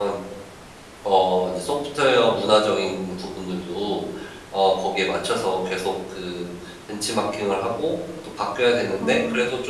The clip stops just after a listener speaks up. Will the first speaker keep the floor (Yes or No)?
Yes